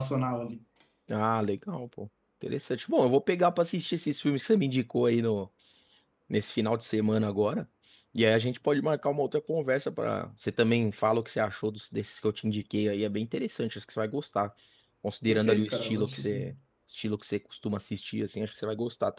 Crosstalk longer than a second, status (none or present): present